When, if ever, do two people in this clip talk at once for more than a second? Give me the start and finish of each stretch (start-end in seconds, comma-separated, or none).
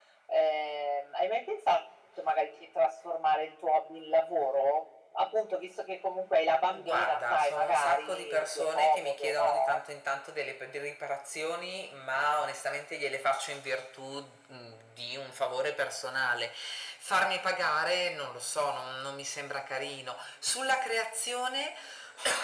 6.7-9.8